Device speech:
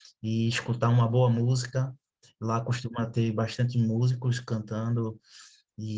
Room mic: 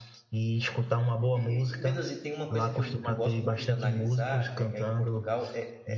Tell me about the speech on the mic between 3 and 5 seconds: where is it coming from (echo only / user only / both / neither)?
both